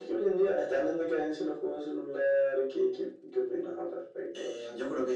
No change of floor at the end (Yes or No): No